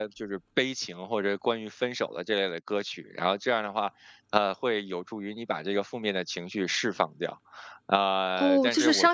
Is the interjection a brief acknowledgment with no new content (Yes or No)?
No